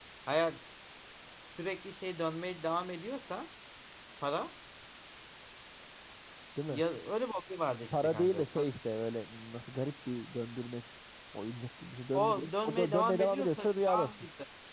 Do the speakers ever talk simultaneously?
Yes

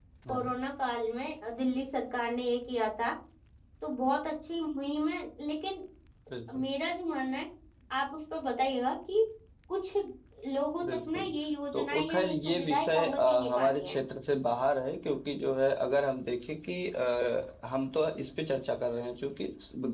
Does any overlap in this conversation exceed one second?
Yes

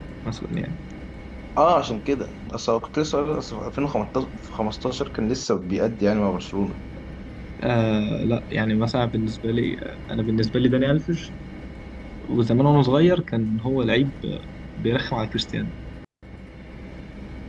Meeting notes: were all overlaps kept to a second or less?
Yes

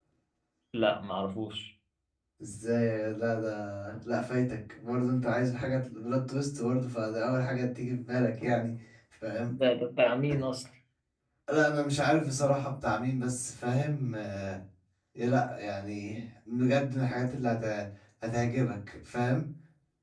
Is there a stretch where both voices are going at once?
No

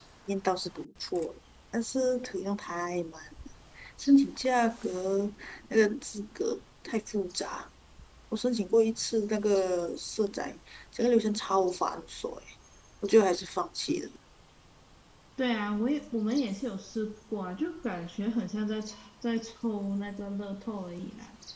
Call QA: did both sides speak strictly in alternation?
Yes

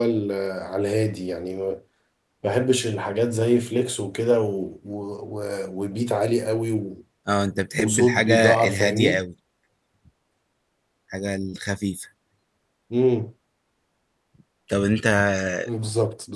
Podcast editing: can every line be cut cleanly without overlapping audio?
No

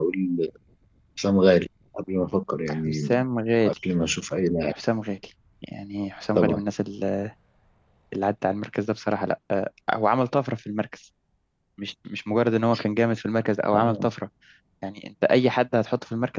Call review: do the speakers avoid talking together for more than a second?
Yes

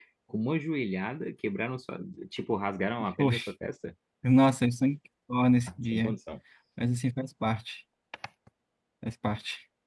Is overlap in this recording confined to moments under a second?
Yes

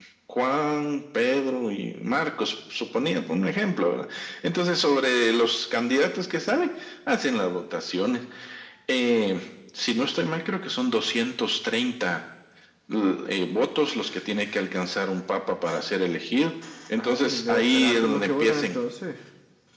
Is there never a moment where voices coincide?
No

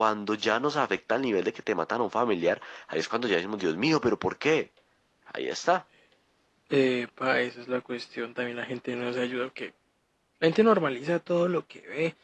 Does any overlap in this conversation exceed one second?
No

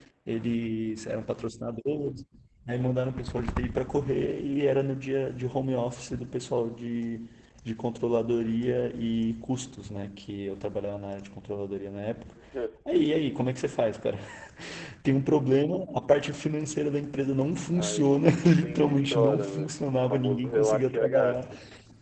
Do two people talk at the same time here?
Yes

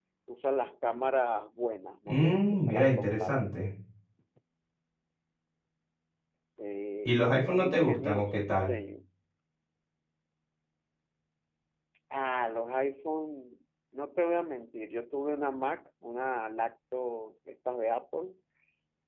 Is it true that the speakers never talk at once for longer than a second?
No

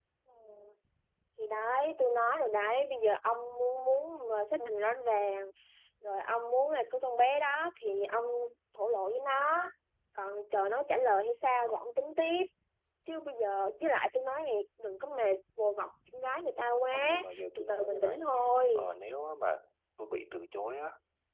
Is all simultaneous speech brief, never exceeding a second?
No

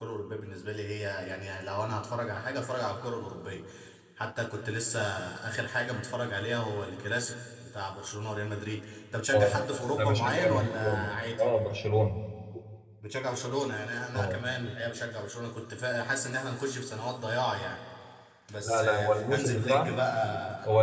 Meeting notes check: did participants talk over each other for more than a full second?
Yes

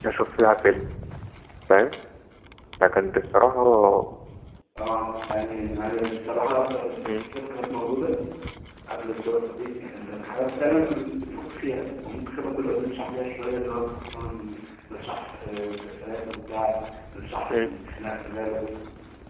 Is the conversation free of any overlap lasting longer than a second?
Yes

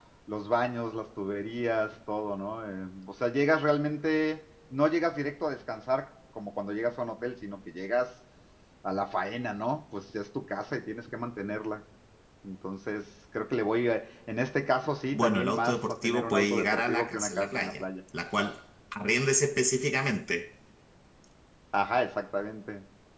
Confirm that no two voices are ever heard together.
No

